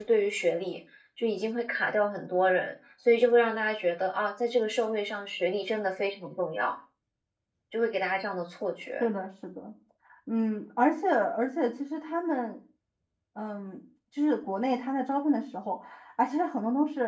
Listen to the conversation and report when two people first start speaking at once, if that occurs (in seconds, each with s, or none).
none